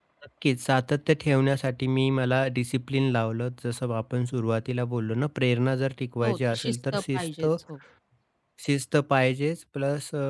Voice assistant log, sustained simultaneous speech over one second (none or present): present